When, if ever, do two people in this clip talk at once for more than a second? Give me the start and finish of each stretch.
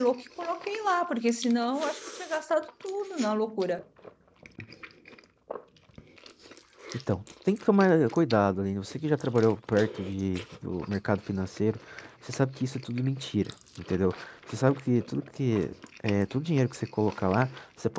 none

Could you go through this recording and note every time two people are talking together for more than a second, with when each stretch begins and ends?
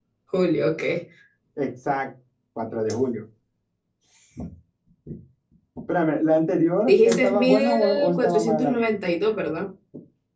6.9-8.8

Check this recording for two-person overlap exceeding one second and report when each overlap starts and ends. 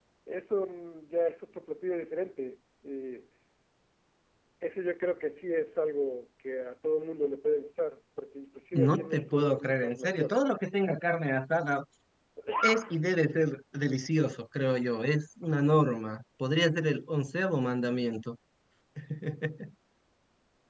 8.7-10.4

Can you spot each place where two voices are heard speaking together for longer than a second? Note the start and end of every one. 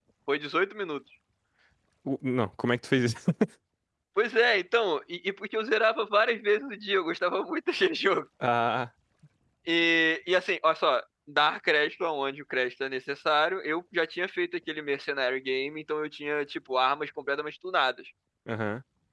none

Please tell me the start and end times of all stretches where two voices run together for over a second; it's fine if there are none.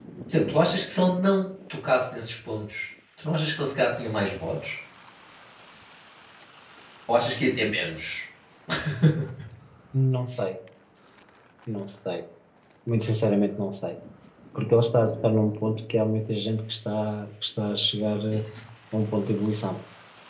none

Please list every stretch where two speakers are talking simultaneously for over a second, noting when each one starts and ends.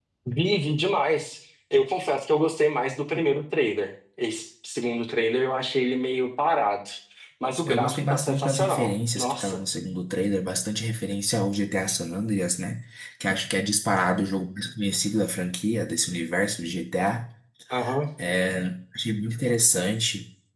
7.7-9.6

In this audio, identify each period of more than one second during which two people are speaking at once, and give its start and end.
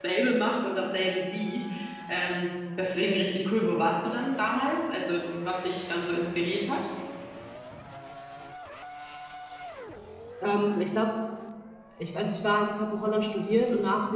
none

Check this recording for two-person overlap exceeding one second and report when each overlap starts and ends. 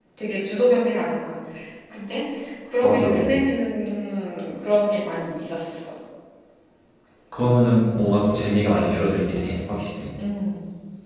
none

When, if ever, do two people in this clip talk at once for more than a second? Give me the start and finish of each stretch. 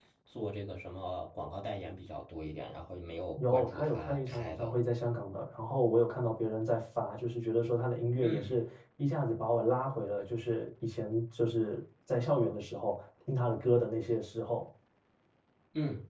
3.4-4.7

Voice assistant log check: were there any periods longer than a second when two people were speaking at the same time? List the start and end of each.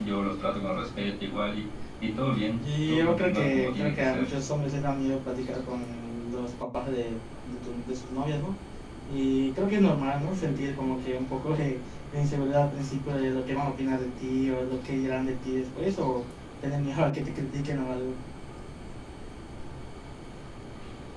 2.6-4.3

